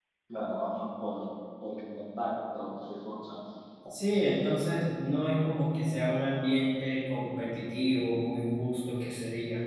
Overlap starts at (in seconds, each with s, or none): none